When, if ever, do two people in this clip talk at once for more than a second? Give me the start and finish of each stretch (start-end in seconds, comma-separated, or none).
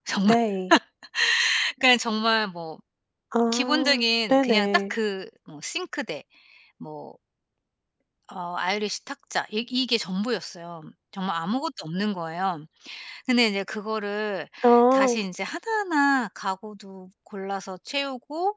3.5-4.8